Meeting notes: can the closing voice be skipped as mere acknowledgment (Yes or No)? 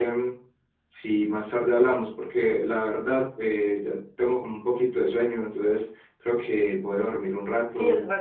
No